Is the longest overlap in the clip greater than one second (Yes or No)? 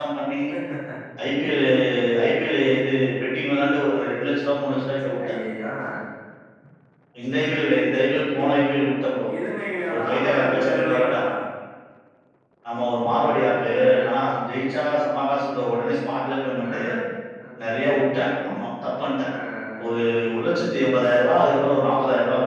Yes